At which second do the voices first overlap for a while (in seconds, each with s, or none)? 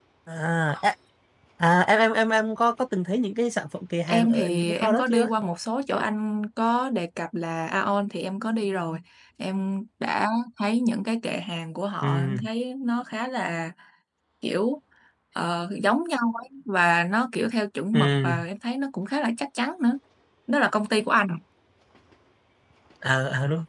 4.1 s